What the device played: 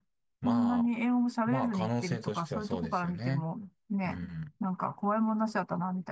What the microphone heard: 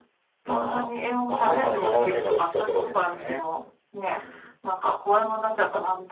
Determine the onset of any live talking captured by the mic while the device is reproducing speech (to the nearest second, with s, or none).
1 s